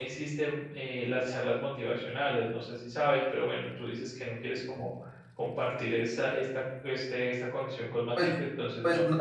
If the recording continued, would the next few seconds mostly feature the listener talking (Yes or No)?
Yes